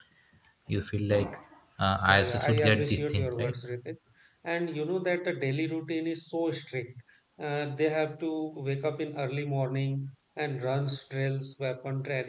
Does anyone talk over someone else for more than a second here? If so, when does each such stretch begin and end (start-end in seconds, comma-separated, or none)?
2.0-3.6